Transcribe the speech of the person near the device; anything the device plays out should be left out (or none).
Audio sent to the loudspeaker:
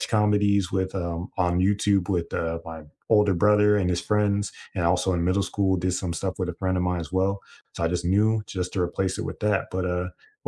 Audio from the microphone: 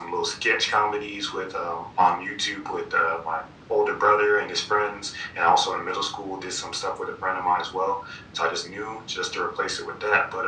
none